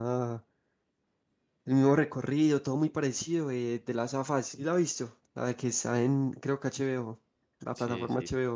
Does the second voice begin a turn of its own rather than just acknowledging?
Yes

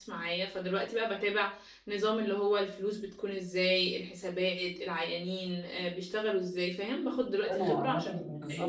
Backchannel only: No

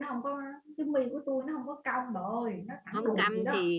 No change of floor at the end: No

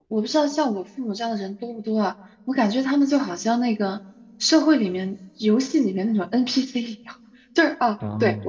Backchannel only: Yes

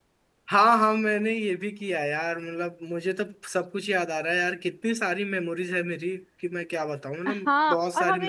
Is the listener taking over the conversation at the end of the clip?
Yes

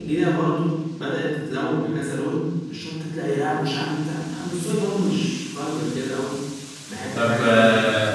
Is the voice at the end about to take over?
Yes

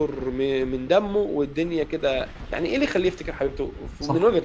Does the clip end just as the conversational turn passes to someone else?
Yes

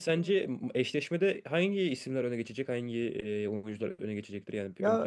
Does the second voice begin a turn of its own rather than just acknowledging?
Yes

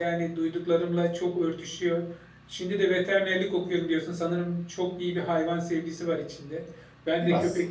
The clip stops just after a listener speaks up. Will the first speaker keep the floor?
Yes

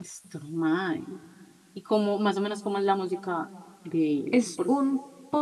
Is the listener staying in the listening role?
No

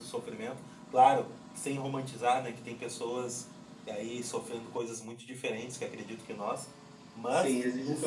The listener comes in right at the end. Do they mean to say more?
Yes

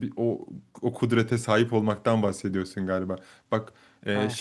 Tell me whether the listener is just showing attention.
Yes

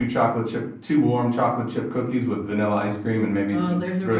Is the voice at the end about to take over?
Yes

